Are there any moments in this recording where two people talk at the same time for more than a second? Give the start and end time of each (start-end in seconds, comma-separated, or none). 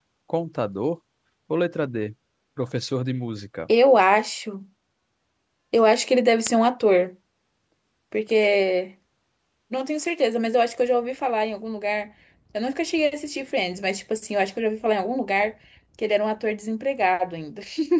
none